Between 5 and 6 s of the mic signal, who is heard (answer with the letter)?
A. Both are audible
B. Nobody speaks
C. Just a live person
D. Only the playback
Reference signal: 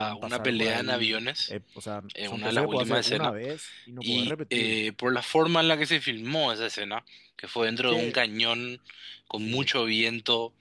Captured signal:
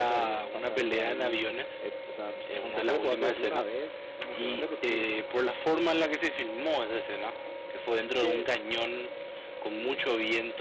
D